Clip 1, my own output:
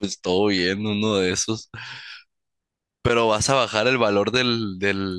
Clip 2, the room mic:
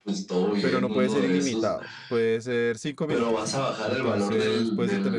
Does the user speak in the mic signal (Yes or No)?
Yes